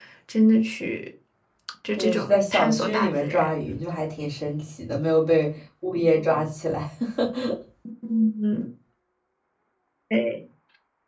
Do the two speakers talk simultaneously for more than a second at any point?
Yes, from 2.0 s

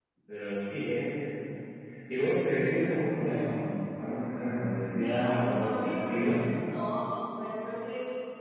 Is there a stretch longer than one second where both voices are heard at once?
Yes, from 5.0 s

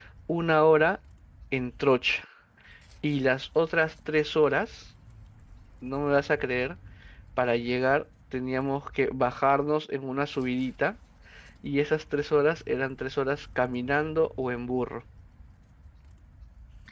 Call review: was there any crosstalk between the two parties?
No

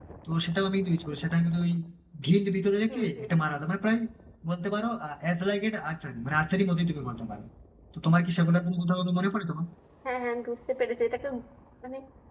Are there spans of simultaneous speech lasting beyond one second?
No

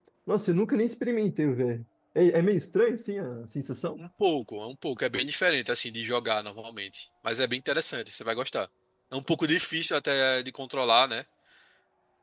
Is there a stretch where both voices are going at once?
No

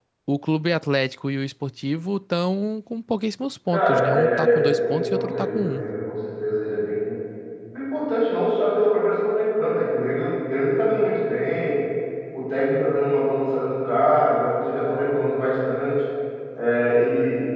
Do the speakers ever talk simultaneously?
Yes, from 3.7 s

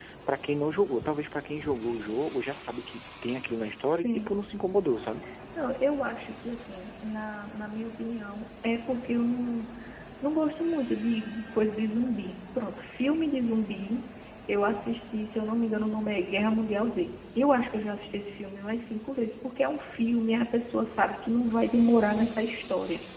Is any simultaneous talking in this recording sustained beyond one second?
No

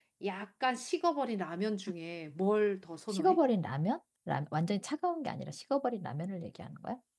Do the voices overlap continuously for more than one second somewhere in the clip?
No

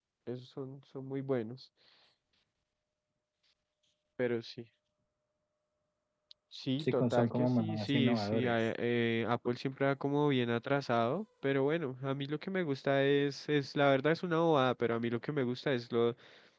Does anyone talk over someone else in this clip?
Yes, from 6.8 s

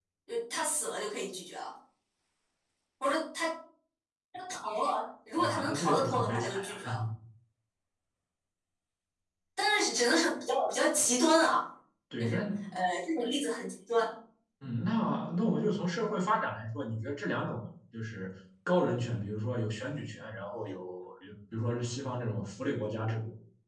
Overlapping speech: Yes, from 5.4 s

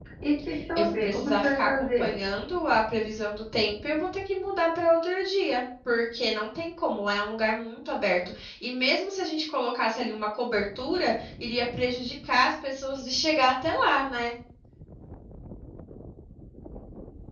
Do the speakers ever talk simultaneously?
Yes, from 0.8 s

